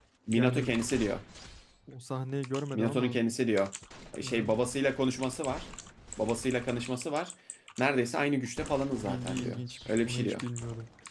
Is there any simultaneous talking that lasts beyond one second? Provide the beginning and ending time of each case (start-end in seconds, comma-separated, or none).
8.9-10.4